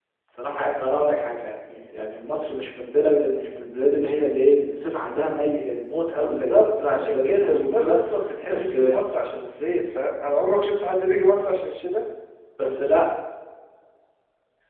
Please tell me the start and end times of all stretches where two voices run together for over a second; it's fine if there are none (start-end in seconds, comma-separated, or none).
6.2-8.0